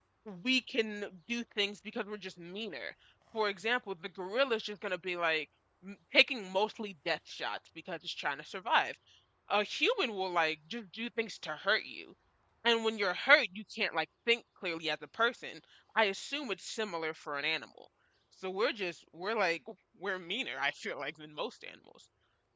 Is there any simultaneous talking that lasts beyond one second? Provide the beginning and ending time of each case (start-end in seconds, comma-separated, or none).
none